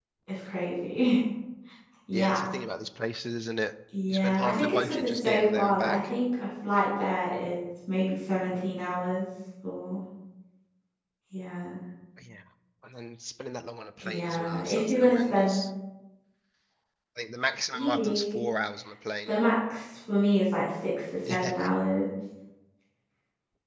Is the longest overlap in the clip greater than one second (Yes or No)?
Yes